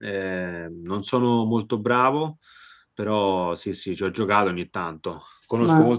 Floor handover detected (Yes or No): No